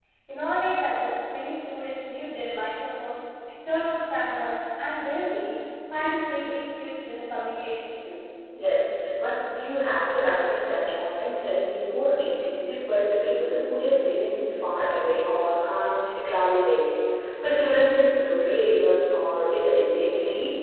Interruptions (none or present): none